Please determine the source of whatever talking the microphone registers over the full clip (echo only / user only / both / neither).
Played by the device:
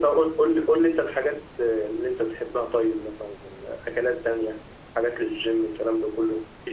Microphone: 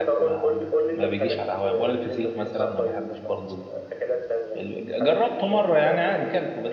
both